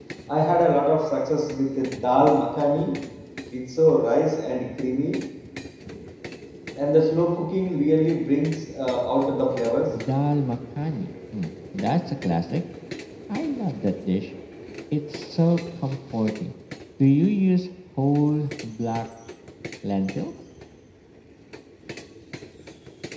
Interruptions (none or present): none